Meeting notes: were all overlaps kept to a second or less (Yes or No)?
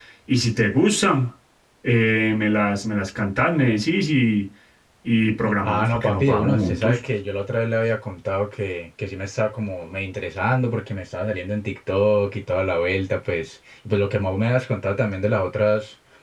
No